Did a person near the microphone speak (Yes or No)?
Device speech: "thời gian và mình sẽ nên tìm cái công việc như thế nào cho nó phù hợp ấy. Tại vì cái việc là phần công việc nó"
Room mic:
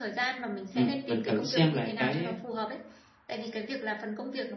Yes